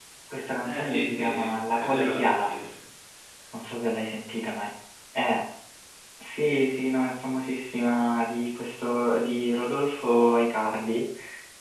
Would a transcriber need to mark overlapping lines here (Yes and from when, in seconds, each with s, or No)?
Yes, from 0.6 s